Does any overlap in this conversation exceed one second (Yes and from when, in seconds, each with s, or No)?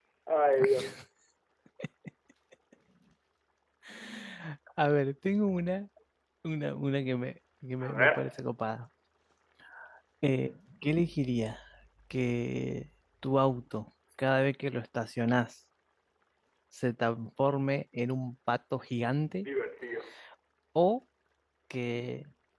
No